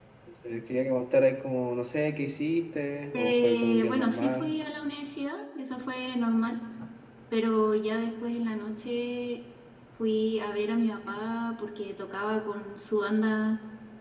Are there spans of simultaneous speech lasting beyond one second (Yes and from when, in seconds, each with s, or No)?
Yes, from 3.1 s